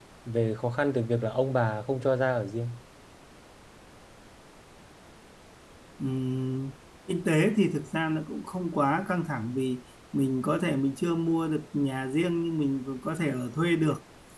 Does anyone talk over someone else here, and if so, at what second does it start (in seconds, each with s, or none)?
none